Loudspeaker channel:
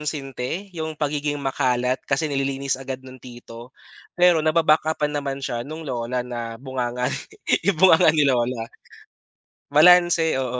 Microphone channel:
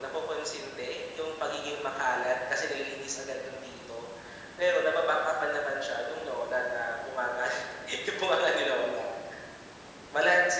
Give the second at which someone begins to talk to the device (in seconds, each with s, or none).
none